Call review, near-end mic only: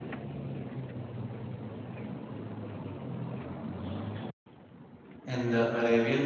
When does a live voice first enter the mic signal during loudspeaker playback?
5.2 s

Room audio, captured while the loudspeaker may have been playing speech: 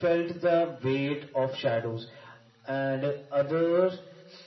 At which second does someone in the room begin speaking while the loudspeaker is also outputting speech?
none

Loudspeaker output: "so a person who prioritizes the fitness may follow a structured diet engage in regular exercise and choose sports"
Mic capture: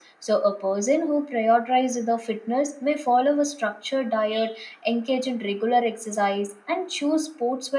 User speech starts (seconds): none

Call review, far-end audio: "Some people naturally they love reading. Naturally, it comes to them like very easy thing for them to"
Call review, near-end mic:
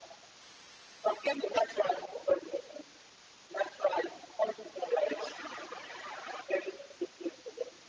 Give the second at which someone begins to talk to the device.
none

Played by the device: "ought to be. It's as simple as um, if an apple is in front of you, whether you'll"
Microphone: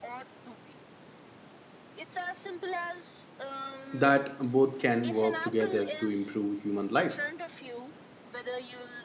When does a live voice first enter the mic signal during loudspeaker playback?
3.9 s

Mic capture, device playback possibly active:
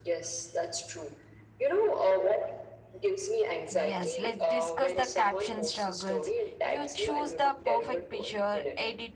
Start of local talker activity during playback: 3.7 s

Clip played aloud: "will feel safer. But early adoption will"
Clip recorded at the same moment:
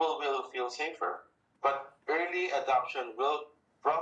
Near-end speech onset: none

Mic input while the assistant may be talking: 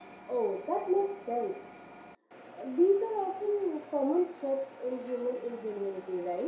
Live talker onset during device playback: none

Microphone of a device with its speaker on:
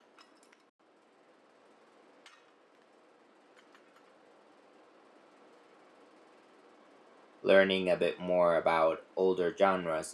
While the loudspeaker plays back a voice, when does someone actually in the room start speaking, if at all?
7.4 s

